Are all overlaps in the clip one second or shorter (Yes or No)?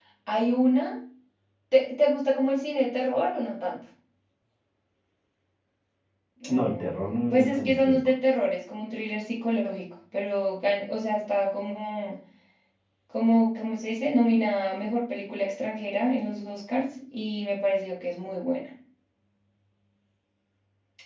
No